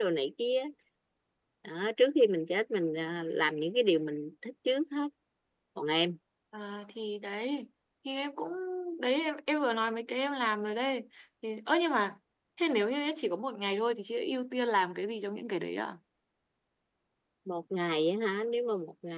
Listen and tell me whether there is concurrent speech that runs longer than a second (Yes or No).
No